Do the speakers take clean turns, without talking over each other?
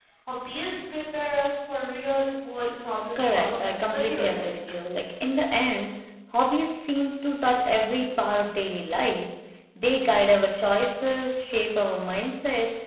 No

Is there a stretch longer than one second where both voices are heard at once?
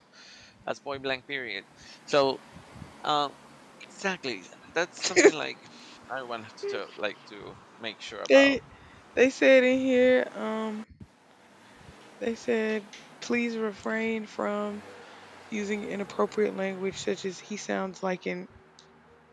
No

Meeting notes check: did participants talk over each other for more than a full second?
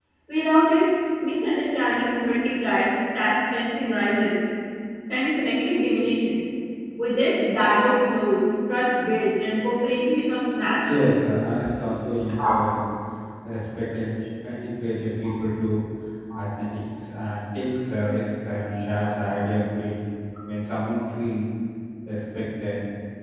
No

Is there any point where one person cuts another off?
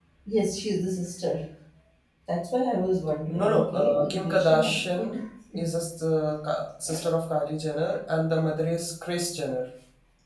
Yes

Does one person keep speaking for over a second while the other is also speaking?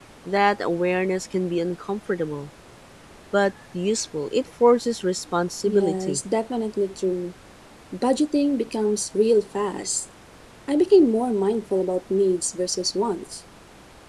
No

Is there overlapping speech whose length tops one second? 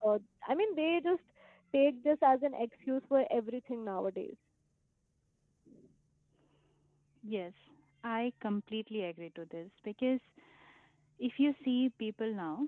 No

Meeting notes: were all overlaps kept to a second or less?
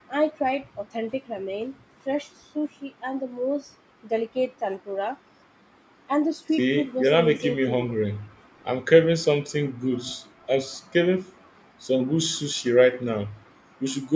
No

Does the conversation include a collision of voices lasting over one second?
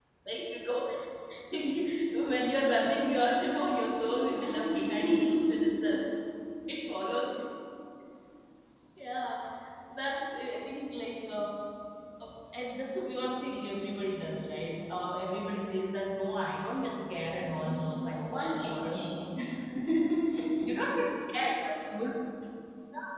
Yes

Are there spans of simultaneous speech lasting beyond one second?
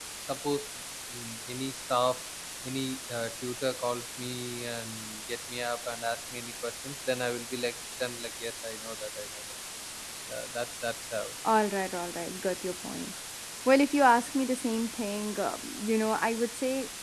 No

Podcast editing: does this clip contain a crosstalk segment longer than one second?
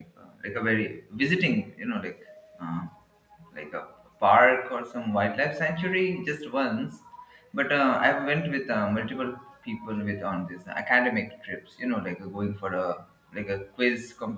No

